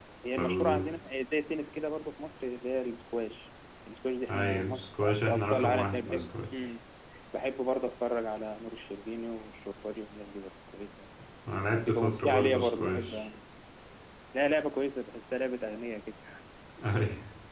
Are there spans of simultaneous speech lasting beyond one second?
Yes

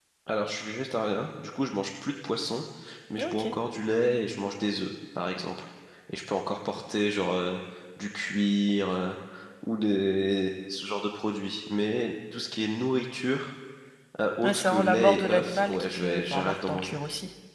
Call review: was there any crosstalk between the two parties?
Yes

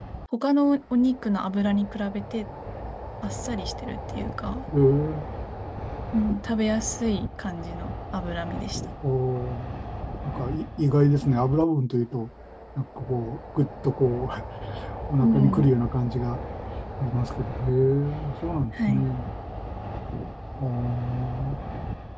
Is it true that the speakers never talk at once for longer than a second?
Yes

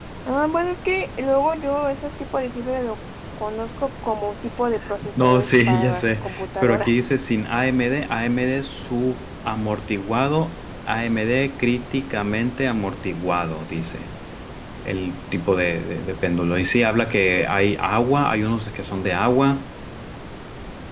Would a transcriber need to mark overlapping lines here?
Yes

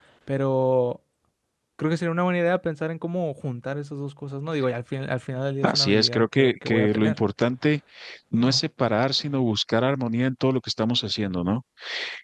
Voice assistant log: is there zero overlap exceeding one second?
No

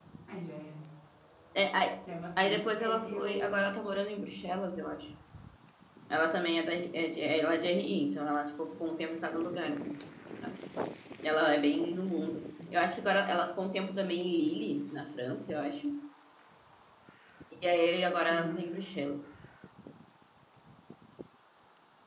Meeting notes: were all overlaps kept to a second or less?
No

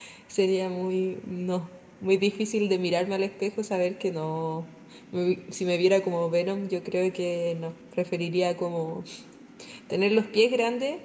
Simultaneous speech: No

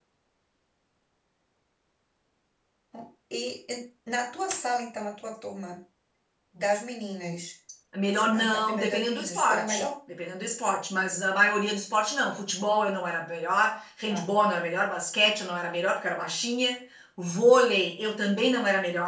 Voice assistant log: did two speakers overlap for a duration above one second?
Yes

